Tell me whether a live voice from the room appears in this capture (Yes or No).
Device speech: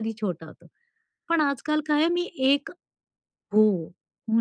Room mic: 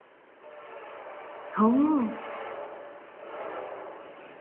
Yes